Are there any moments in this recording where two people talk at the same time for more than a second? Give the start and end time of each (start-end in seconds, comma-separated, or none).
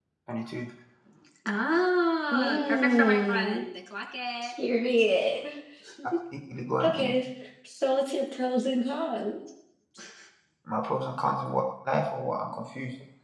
2.3-3.6